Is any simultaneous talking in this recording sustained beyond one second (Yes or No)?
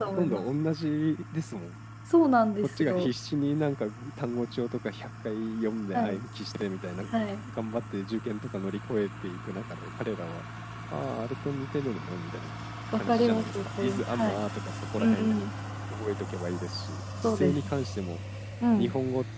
Yes